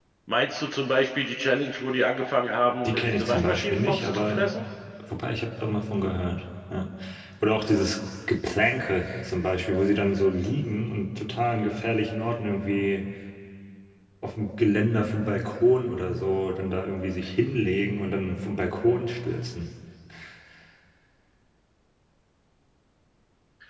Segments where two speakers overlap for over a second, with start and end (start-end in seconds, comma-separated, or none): 2.9-4.5